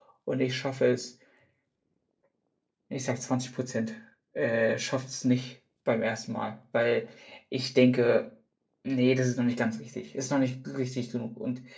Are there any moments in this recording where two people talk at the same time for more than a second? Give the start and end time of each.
none

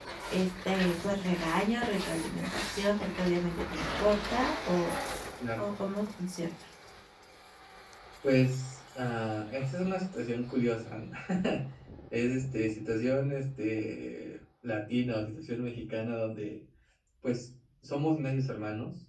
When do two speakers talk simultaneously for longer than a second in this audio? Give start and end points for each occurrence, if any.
none

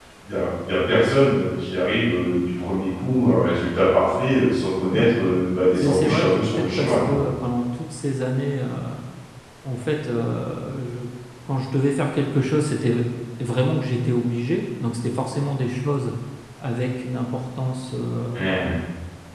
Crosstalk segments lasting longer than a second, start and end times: 5.8-7.2

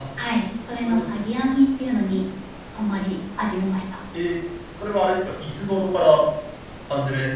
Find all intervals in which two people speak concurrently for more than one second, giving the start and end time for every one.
none

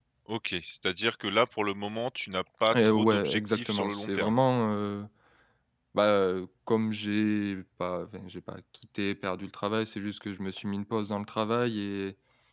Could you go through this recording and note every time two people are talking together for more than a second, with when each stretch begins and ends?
2.7-4.3

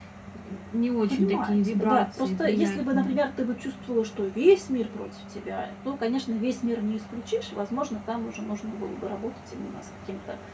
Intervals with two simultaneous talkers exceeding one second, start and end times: 1.1-3.2

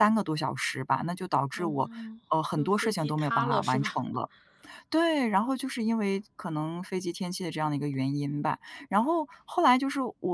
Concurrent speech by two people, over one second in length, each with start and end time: 2.6-4.0

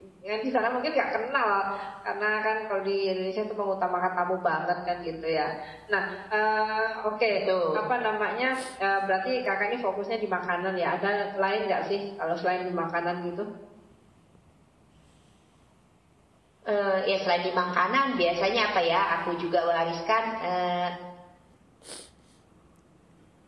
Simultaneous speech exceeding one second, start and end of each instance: none

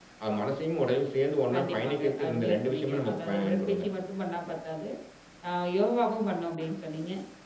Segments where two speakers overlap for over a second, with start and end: 1.5-3.8

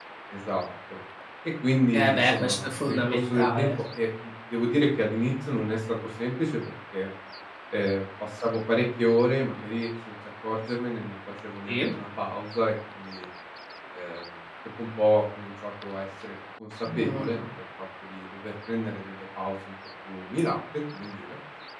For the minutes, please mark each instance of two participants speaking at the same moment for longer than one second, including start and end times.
1.9-3.7

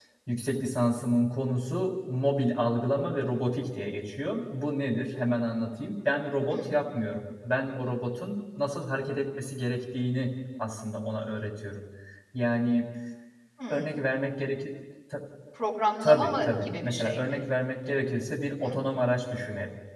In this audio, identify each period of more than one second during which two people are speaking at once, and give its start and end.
16.0-17.4

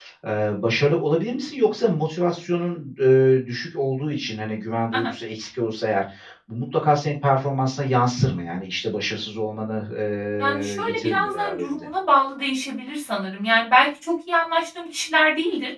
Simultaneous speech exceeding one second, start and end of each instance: 10.4-11.9

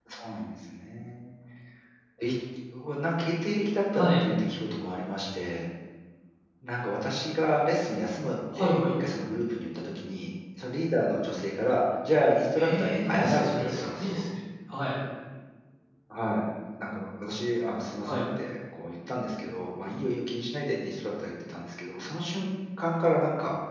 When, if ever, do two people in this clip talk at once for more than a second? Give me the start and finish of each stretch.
12.6-14.2

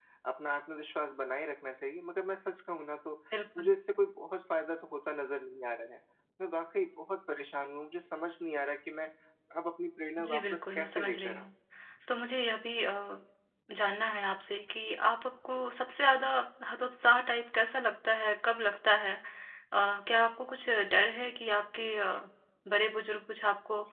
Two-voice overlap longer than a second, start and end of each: 10.2-11.5

